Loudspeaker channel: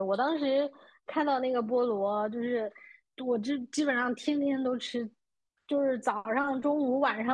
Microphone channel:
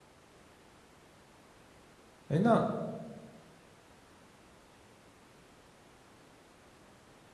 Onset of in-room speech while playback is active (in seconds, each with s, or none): 2.3 s